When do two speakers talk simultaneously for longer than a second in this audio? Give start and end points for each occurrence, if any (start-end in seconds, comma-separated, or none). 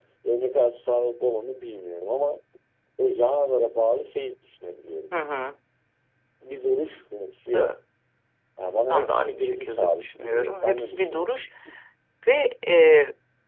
8.9-11.3